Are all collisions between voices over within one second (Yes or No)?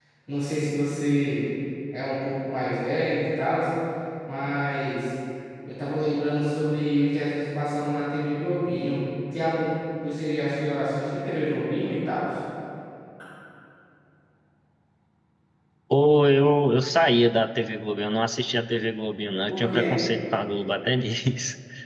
Yes